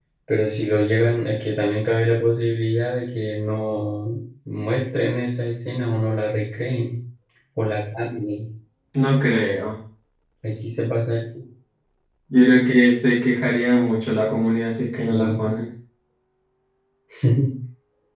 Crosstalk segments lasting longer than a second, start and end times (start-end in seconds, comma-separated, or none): none